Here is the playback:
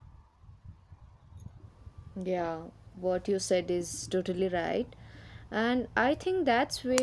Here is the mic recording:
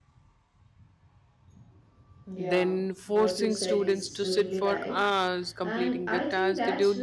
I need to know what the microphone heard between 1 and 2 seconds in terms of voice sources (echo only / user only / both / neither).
neither